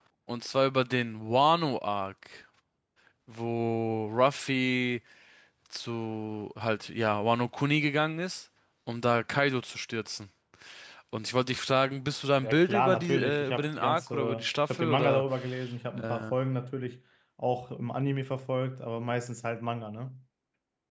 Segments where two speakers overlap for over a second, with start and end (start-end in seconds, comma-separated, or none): 12.4-15.2